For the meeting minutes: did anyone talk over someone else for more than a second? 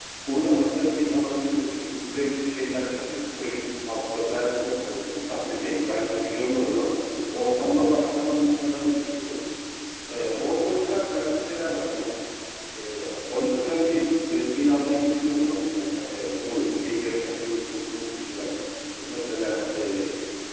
No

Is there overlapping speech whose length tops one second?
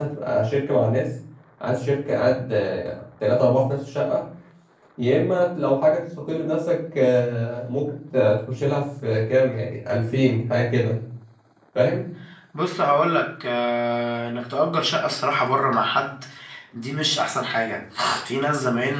No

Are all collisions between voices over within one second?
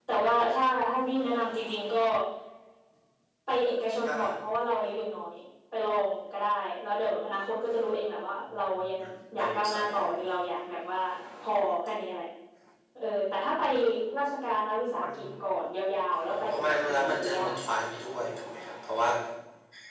No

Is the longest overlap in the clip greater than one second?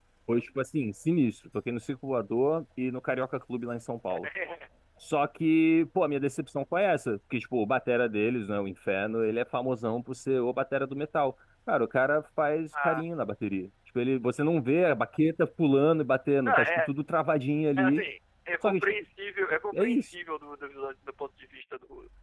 No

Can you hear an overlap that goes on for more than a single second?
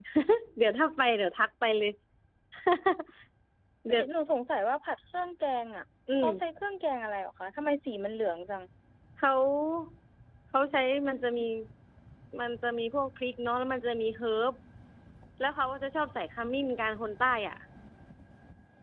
No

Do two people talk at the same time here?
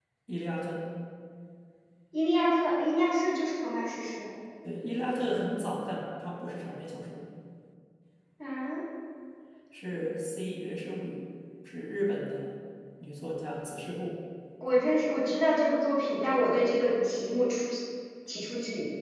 No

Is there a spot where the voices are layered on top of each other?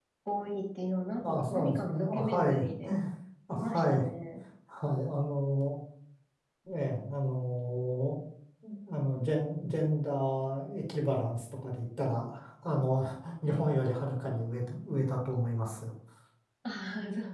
Yes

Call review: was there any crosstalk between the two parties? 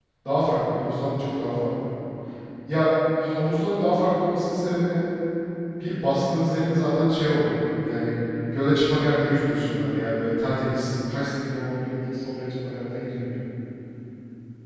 No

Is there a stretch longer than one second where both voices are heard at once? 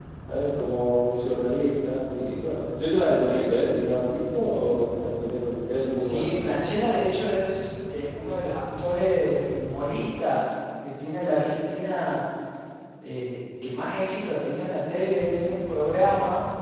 No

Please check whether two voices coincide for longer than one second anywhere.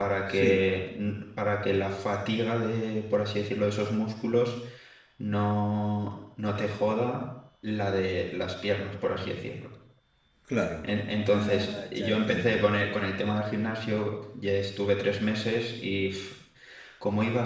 Yes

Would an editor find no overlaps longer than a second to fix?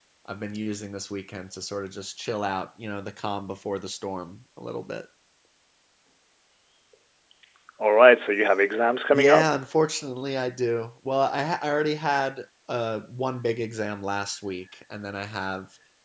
Yes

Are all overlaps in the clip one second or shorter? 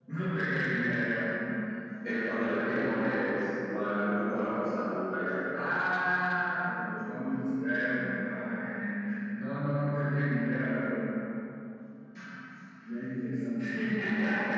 No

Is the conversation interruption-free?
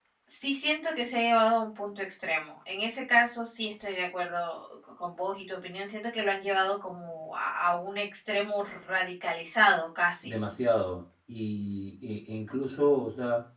Yes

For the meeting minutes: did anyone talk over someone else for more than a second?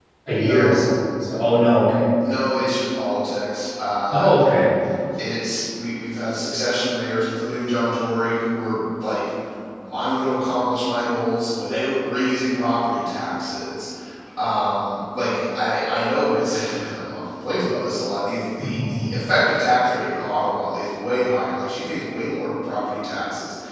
No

